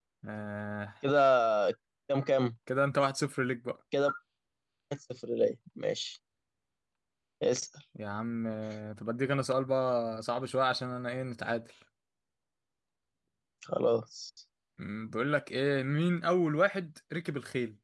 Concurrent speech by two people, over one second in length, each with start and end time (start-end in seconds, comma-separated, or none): none